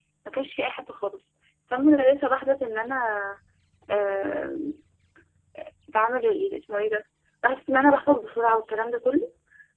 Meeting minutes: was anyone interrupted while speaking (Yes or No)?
No